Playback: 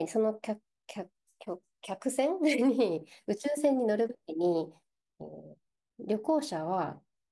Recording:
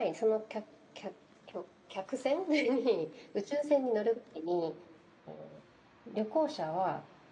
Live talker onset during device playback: none

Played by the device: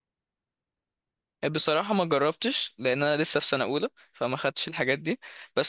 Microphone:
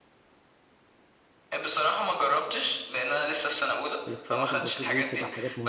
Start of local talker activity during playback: 4.1 s

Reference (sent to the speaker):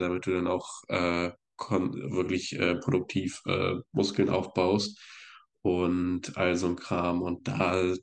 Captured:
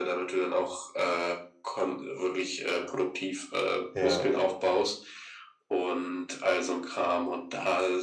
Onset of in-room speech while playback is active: 3.9 s

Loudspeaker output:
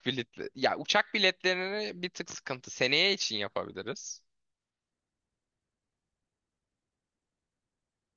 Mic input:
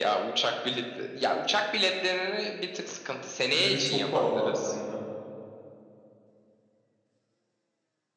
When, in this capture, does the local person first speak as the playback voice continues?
3.5 s

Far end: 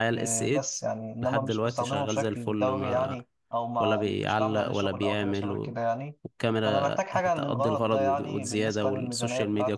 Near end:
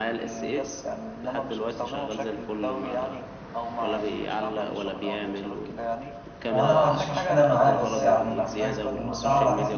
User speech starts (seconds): 6.5 s

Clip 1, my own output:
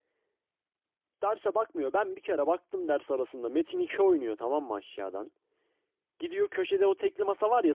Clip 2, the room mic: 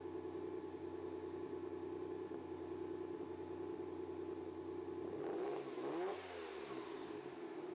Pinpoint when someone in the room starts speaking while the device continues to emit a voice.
none

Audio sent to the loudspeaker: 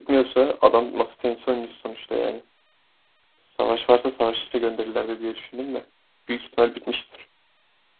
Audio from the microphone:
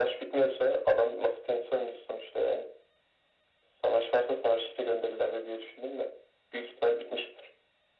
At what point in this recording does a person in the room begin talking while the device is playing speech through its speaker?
none

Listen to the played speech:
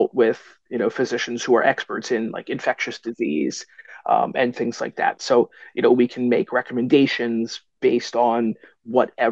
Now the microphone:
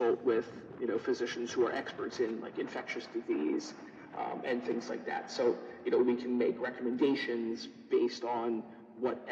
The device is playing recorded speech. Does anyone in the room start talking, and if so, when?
none

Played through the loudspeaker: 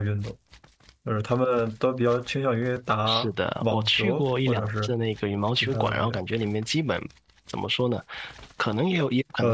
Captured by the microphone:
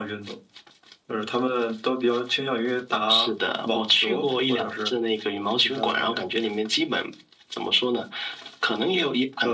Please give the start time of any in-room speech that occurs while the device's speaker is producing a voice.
none

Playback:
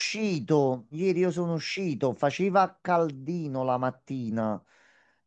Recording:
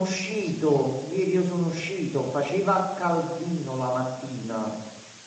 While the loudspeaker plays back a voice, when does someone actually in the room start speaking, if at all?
none

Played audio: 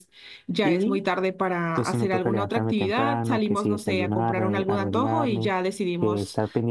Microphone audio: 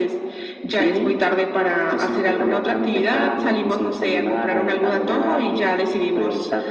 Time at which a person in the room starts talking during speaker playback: none

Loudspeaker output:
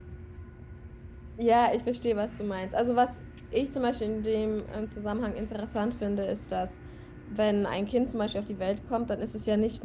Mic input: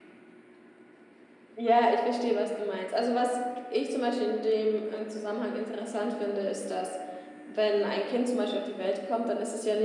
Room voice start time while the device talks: none

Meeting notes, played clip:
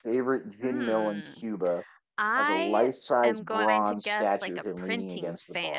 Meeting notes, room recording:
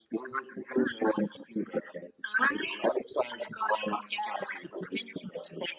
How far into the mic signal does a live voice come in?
none

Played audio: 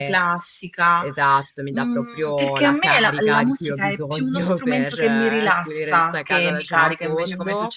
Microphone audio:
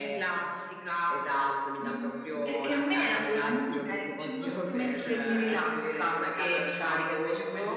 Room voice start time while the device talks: none

